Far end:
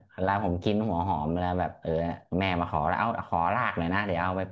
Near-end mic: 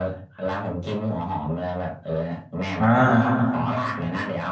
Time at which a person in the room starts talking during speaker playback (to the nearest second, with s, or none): 3 s